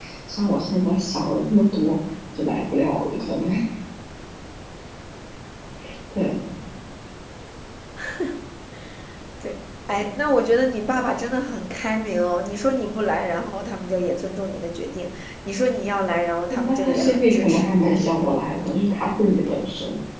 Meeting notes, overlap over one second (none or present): present